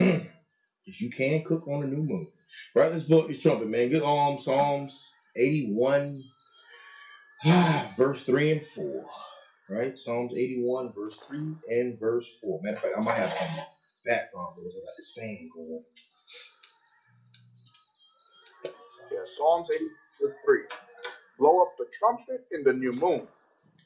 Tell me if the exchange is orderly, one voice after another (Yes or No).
Yes